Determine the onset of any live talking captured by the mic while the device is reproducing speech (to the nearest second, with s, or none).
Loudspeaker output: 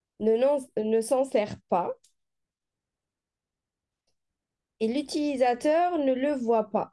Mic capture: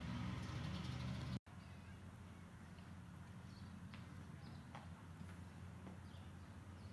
none